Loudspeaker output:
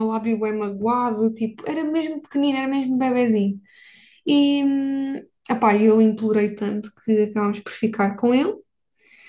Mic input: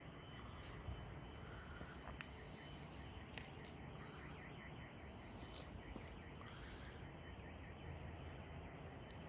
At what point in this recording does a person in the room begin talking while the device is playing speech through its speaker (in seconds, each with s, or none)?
none